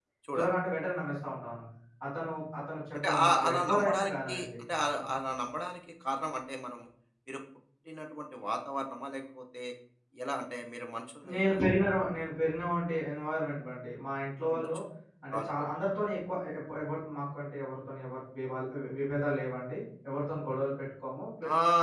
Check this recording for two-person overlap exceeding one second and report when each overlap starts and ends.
3.1-4.5

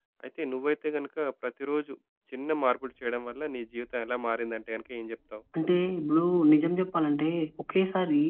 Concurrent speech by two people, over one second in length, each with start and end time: none

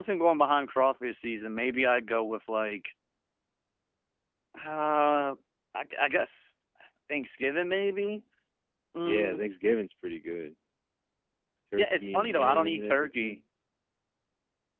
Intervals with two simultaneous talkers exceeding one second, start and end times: 11.8-13.4

